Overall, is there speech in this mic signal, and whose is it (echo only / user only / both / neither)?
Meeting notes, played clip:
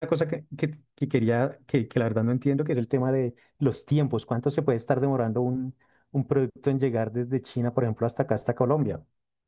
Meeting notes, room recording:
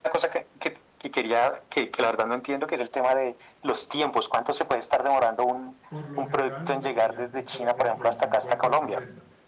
both